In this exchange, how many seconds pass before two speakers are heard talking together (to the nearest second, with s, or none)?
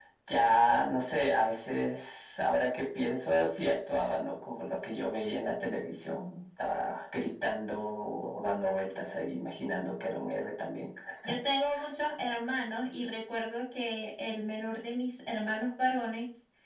none